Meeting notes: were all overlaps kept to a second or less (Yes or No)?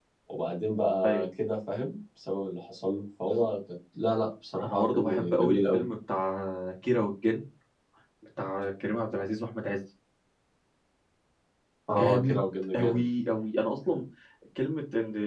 No